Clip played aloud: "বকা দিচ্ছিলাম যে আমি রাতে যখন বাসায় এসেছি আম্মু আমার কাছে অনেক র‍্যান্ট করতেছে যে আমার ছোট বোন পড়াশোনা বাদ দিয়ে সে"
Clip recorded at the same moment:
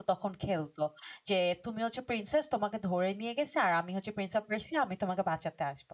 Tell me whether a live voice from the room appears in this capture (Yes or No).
Yes